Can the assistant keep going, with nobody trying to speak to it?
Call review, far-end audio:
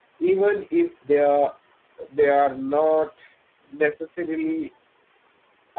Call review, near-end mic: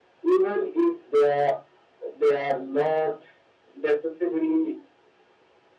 Yes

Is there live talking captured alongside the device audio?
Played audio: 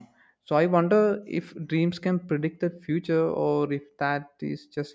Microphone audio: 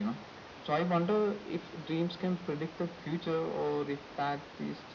No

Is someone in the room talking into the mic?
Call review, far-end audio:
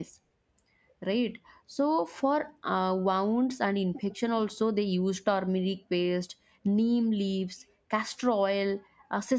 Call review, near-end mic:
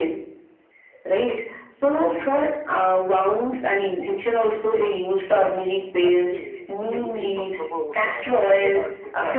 Yes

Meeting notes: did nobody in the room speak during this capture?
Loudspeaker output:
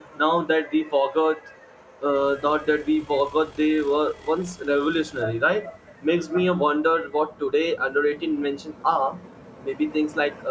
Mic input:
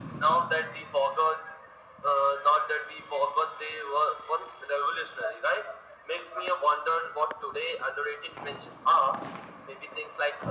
Yes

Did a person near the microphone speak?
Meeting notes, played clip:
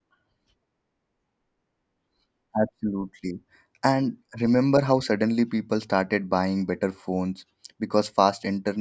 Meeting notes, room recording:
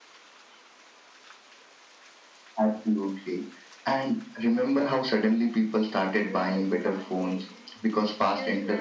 Yes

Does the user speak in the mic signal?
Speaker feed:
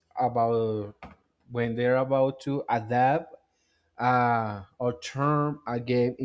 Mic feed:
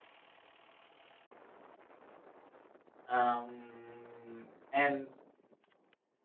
Yes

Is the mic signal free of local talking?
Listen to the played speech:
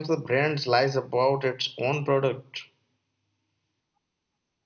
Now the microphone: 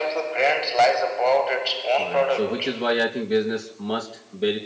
No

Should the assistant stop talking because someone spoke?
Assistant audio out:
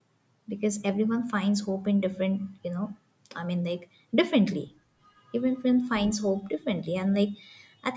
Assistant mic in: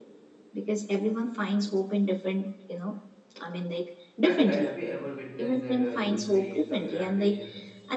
Yes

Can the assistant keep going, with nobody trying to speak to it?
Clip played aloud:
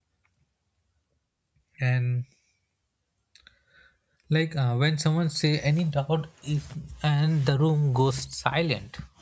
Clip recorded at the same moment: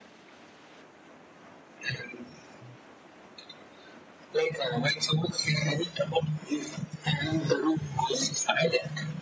Yes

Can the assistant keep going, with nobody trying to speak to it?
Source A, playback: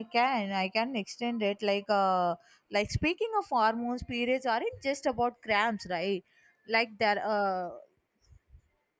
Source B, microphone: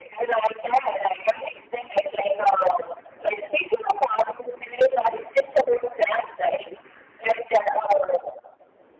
Yes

